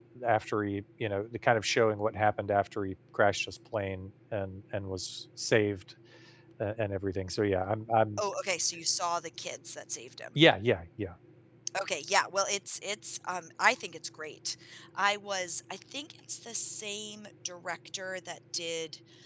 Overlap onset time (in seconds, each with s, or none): none